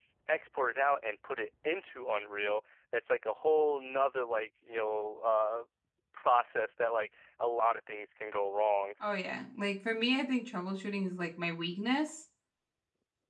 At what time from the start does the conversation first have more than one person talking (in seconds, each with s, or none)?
none